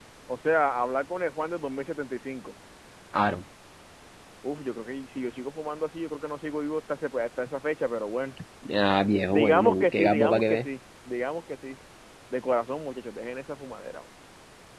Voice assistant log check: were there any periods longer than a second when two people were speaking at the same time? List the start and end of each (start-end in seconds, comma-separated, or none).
9.3-10.7